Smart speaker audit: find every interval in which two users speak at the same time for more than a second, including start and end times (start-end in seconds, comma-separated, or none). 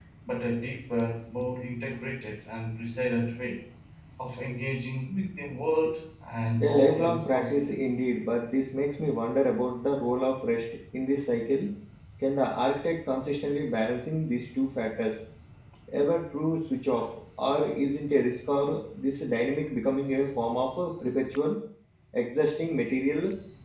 6.6-8.1